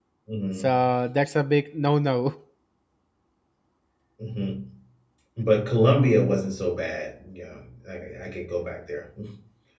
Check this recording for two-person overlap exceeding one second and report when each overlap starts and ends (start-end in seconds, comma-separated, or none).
none